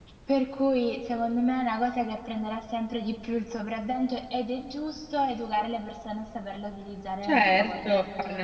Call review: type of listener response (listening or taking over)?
taking over